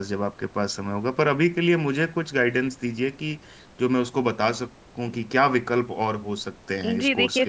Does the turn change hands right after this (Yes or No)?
Yes